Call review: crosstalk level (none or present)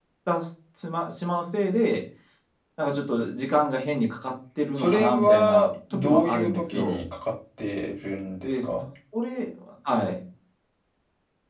present